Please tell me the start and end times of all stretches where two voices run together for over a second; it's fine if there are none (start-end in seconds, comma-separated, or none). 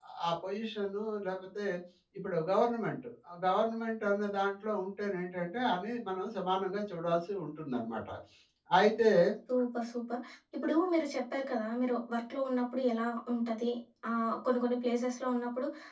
none